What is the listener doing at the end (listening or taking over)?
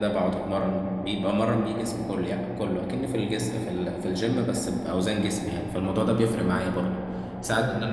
listening